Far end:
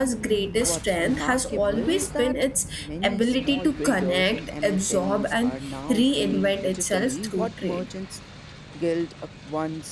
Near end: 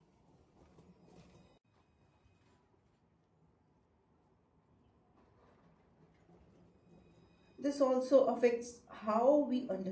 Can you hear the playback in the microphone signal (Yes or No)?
No